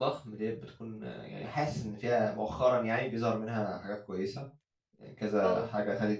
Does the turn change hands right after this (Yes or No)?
No